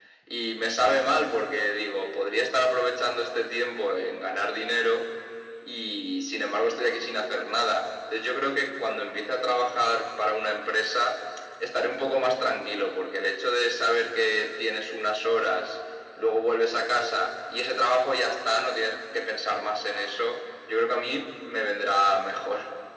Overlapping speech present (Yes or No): No